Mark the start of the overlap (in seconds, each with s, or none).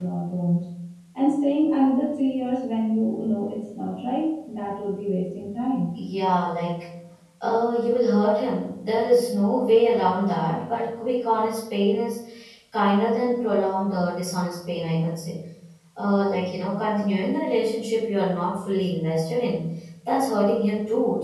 none